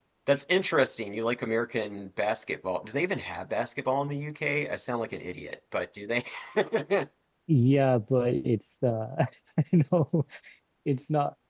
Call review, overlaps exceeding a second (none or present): none